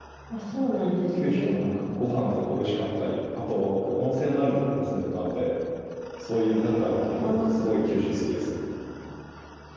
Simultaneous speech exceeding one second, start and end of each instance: none

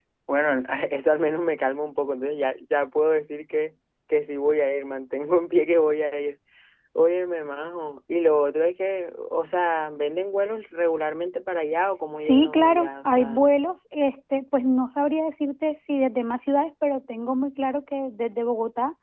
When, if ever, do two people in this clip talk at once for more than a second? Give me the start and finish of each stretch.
12.2-13.5

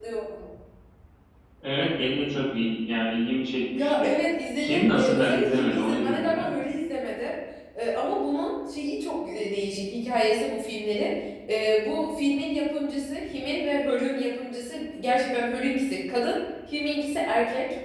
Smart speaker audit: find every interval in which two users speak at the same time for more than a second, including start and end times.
4.6-6.5

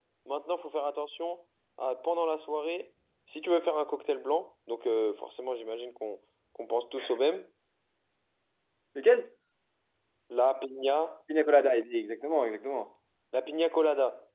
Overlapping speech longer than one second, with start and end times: none

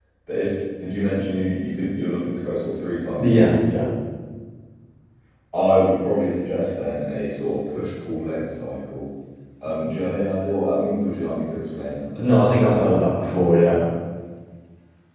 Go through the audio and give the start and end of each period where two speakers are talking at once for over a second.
none

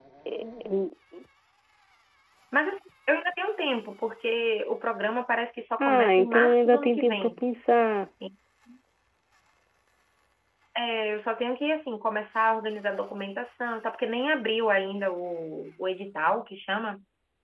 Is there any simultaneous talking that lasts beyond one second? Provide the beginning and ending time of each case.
5.8-7.3

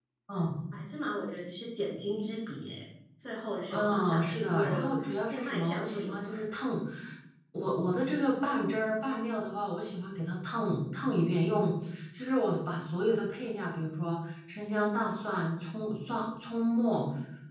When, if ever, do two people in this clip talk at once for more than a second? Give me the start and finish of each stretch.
3.7-6.4

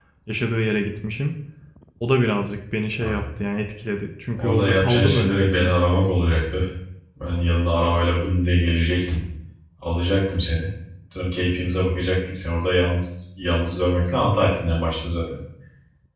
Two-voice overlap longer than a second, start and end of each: 4.3-5.7

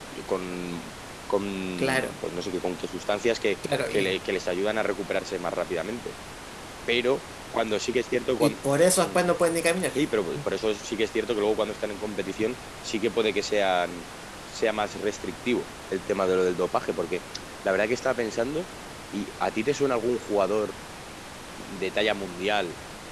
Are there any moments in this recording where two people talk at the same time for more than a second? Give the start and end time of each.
none

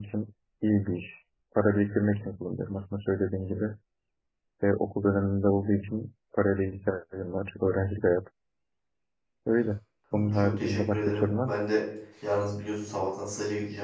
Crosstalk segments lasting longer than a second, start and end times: 10.1-11.6

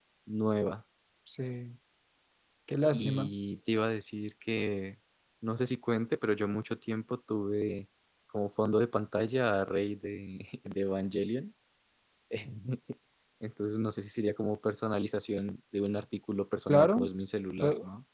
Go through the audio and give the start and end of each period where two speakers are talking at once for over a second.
none

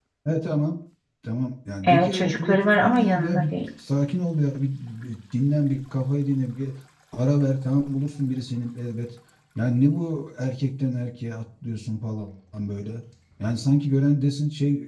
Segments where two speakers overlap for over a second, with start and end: 1.9-3.5

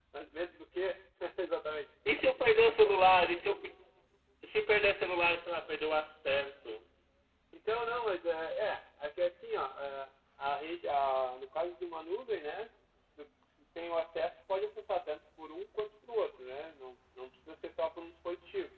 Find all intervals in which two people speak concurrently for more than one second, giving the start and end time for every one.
none

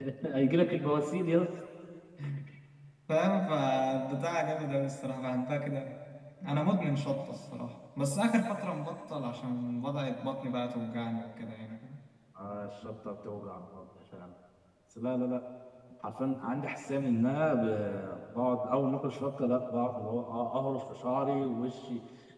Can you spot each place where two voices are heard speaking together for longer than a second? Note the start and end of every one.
none

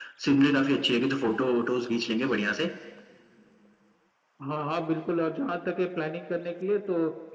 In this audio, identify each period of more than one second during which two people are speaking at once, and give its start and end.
none

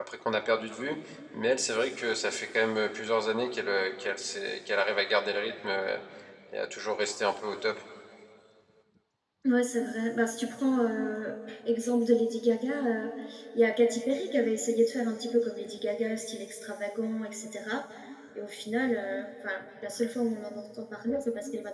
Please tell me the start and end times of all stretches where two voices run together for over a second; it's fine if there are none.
none

